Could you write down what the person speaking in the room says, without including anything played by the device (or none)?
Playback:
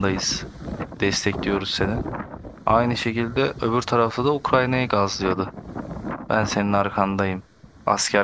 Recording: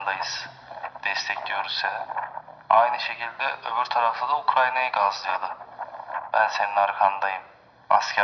none